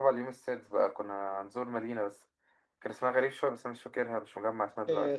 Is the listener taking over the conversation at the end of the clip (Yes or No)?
Yes